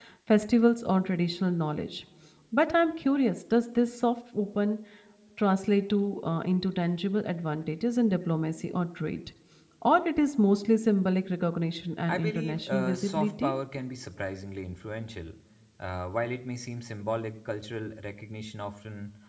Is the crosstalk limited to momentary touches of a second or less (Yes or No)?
No